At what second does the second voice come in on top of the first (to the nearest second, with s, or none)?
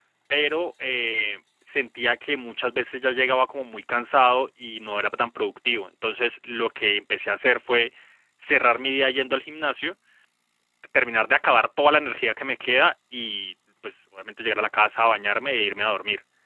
none